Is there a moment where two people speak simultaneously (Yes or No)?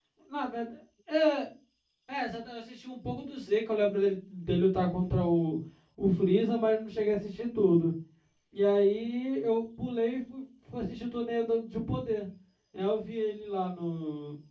No